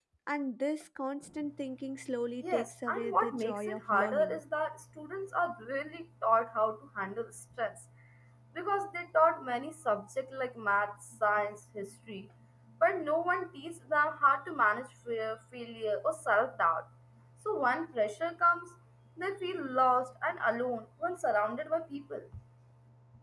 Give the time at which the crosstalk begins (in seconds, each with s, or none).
2.4 s